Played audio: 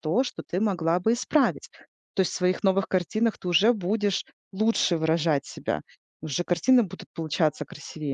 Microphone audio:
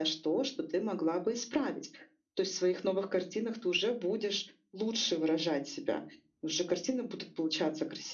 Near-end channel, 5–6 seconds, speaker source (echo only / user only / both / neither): echo only